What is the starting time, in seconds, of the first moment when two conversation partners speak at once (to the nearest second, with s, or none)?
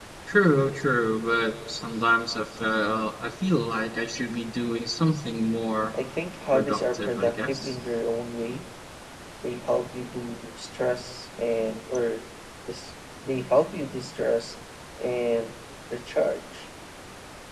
7 s